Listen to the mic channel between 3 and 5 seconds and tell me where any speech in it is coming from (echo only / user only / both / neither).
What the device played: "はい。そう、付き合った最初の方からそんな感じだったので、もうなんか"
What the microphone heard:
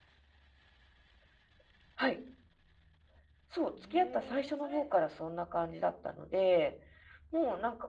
both